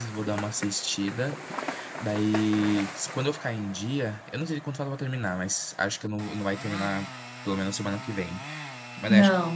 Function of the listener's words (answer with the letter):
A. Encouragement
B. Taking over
A